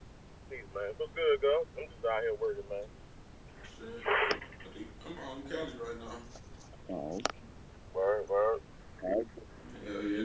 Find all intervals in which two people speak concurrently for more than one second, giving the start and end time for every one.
none

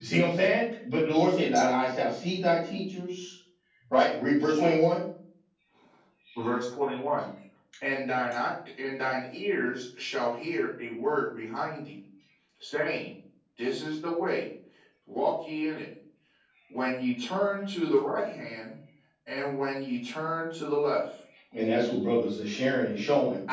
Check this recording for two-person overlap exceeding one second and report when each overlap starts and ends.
none

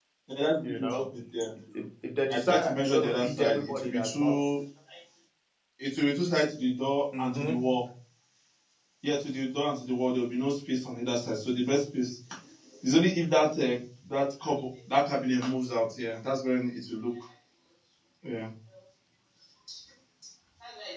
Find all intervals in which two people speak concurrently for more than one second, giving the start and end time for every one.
2.3-4.3

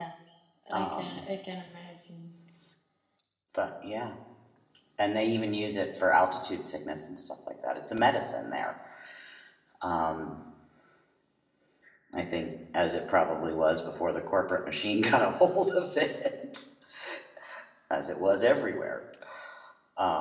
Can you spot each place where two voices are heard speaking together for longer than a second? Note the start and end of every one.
none

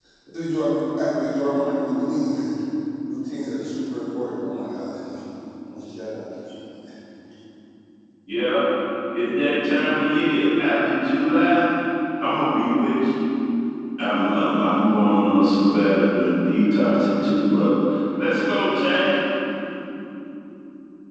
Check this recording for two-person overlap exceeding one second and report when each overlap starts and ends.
none

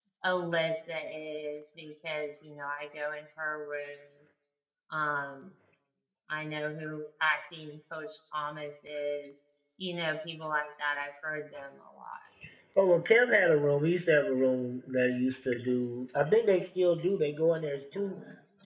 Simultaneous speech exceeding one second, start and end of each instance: none

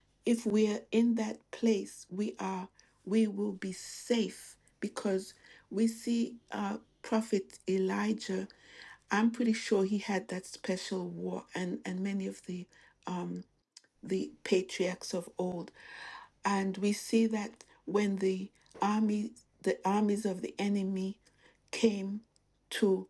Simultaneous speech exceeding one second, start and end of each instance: none

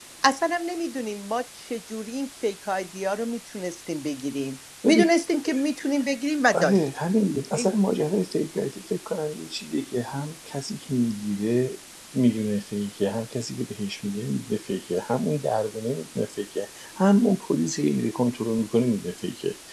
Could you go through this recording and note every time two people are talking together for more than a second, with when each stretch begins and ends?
none

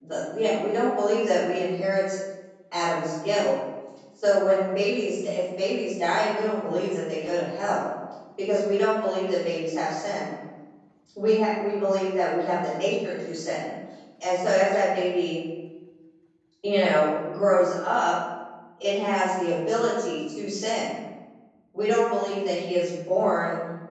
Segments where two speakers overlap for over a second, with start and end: none

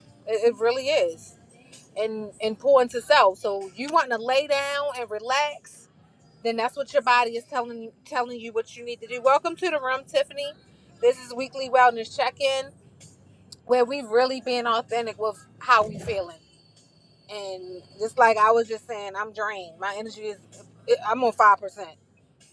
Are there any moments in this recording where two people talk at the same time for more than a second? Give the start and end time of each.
none

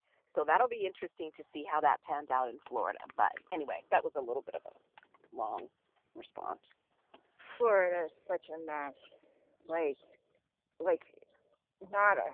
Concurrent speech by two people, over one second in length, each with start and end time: none

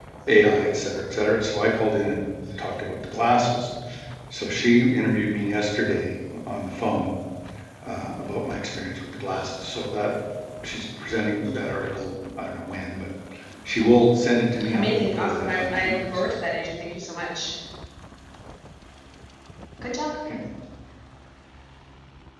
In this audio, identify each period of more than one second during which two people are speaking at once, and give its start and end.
14.7-16.0

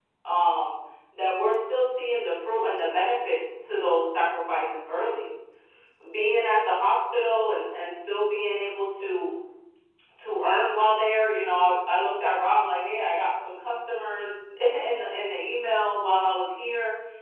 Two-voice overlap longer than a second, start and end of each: none

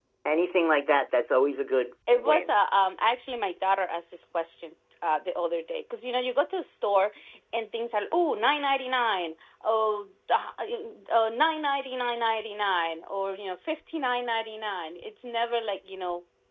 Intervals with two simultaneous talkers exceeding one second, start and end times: none

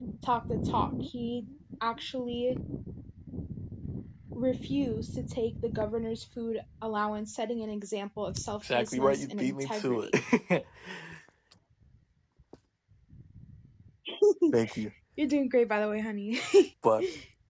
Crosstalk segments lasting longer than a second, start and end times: 8.7-10.1

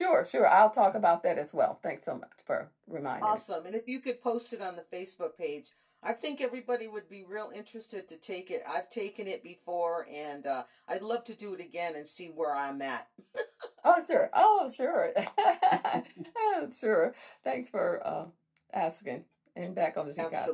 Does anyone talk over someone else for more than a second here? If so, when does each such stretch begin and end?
none

